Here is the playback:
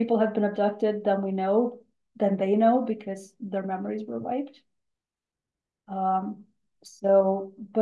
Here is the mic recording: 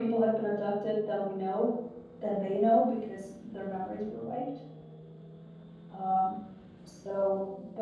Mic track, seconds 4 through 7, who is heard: echo only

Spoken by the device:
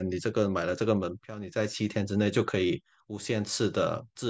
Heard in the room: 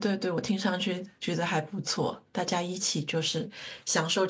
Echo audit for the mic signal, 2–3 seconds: user only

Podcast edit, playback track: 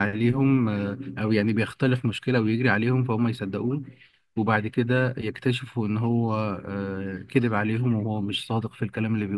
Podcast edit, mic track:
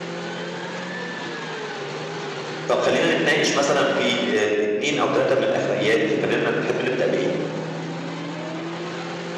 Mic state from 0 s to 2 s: neither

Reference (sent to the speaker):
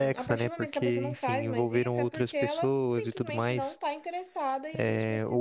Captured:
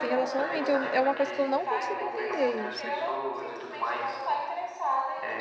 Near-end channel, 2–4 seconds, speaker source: both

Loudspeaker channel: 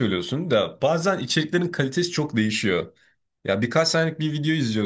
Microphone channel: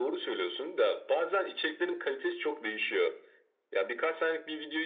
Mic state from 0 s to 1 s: echo only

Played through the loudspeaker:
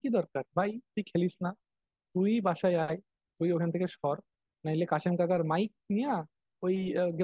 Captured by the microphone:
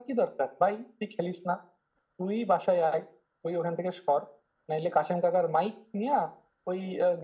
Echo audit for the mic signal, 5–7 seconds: echo only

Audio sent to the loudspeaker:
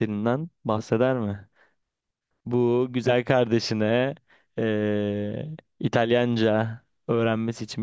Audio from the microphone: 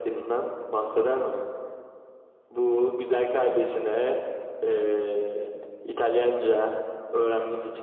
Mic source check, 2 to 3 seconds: echo only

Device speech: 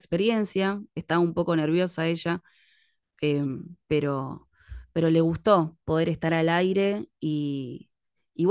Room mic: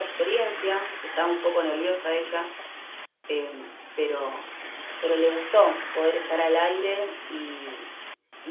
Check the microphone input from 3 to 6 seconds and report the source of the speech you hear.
echo only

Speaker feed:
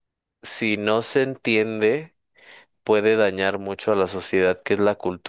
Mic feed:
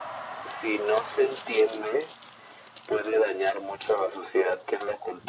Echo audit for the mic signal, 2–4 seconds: echo only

